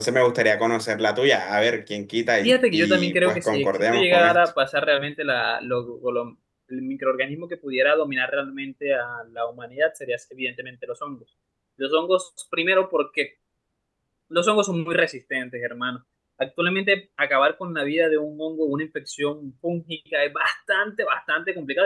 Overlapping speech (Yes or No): Yes